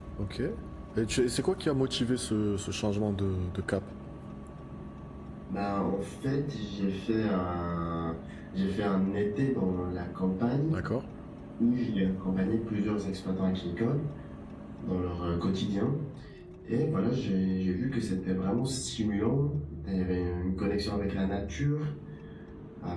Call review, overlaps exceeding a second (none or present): none